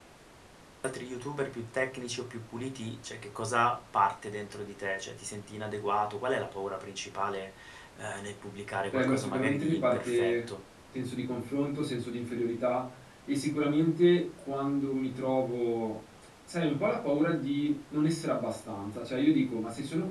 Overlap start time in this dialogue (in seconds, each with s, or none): 8.9 s